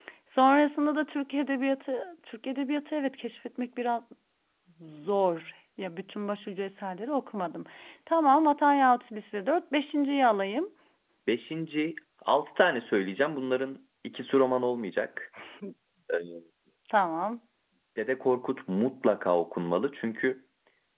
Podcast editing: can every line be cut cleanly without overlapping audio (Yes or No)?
Yes